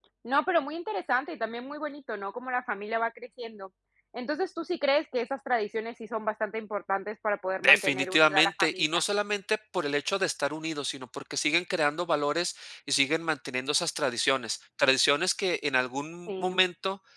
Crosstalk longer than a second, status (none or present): present